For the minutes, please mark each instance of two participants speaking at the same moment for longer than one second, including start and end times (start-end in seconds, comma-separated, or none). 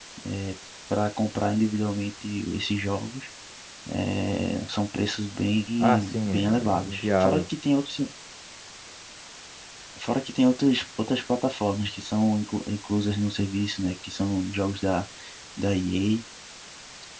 5.8-7.4